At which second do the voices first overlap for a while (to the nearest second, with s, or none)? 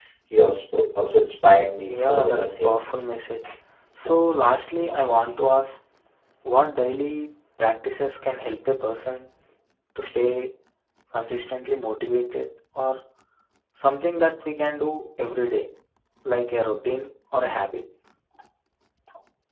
2 s